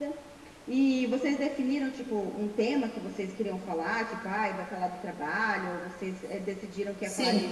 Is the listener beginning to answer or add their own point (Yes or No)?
Yes